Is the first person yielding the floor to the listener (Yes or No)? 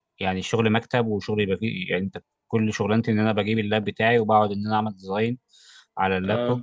No